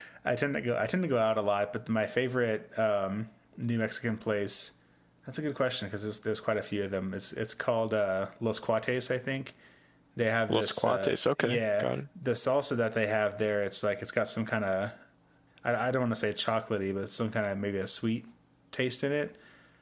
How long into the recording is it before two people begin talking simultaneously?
10.5 s

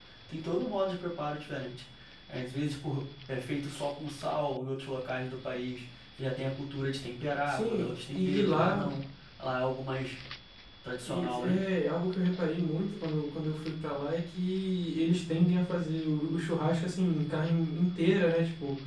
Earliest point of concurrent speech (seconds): 7.5 s

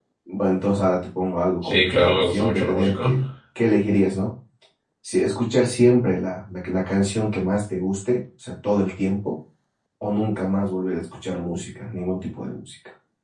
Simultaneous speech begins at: 1.6 s

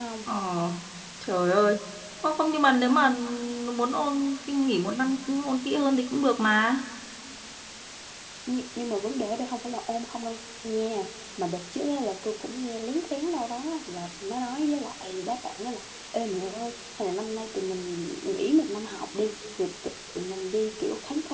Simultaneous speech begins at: none

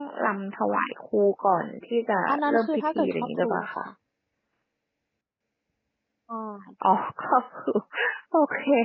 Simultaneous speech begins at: 2.3 s

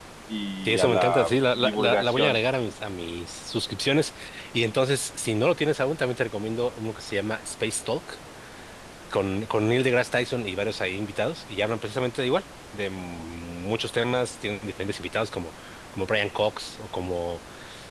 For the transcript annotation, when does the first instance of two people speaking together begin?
0.7 s

